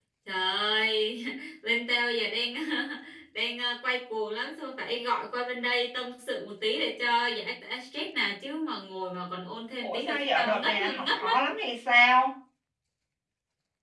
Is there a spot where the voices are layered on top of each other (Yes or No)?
Yes